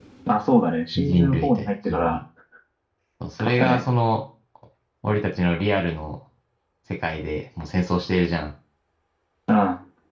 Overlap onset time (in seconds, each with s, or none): 1.0 s